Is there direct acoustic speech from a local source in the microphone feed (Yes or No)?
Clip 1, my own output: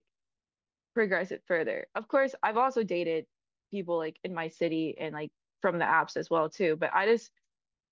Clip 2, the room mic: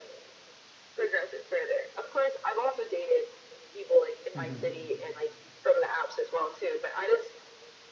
Yes